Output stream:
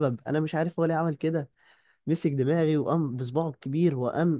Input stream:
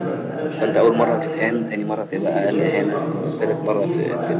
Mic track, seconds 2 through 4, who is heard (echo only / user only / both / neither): both